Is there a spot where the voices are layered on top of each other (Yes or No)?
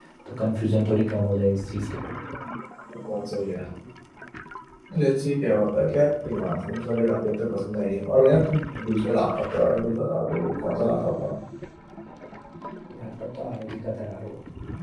No